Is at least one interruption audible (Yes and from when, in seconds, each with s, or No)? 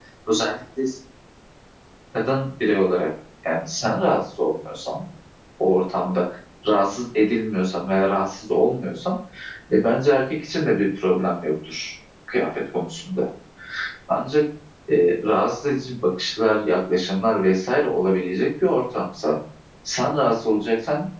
No